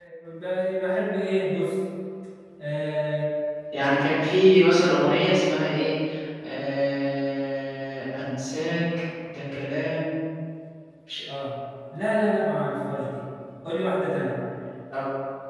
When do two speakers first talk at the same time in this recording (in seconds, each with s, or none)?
none